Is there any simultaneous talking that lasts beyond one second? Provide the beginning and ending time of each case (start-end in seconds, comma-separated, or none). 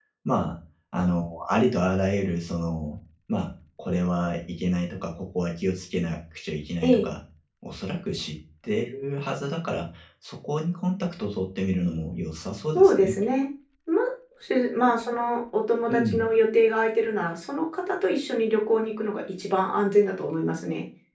none